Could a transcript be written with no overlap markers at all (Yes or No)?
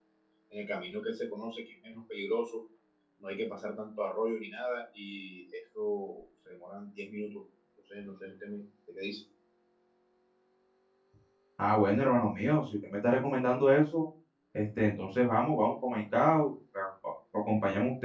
Yes